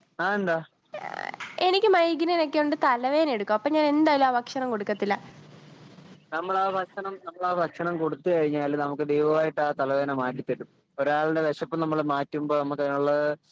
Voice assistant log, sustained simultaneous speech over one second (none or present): none